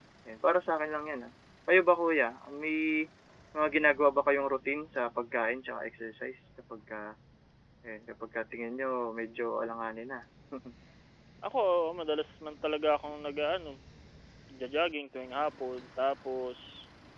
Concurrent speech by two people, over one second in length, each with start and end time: none

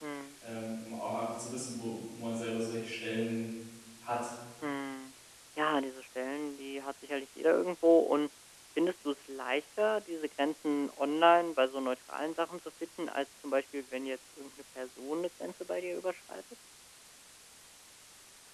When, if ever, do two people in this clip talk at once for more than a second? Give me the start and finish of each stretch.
none

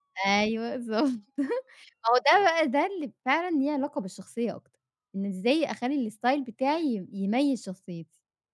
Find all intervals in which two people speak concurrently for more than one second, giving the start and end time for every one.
none

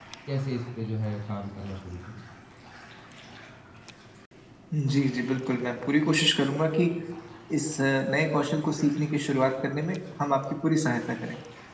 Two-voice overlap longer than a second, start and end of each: none

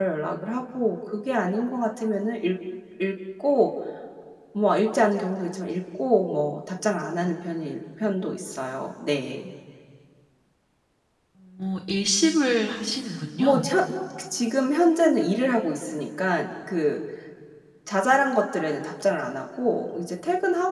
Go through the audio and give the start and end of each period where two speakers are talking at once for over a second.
none

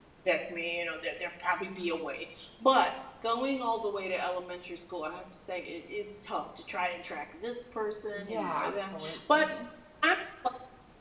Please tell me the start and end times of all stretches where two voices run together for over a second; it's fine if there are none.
8.1-9.4

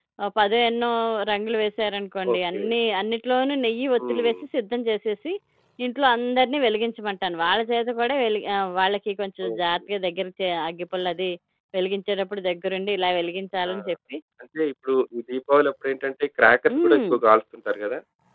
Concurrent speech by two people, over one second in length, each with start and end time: none

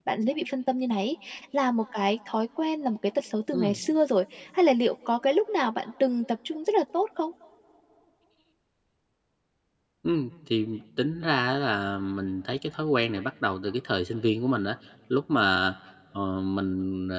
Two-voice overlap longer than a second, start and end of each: none

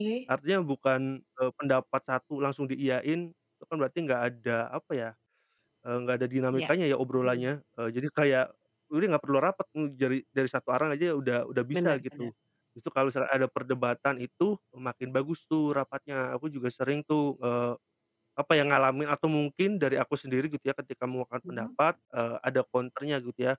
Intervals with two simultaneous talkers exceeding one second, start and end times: none

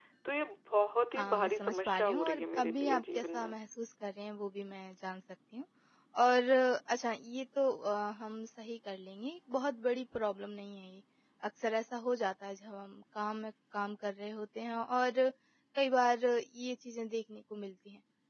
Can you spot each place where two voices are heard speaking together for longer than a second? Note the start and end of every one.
1.2-3.5

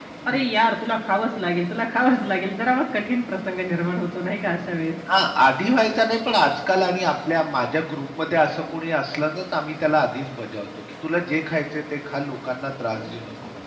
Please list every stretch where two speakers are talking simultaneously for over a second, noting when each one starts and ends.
none

